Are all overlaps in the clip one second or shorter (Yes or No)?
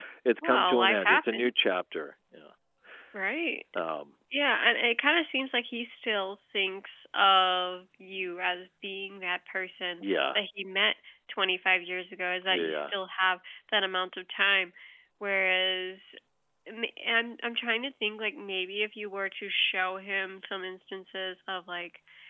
No